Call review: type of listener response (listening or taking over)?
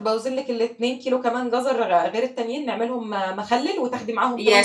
taking over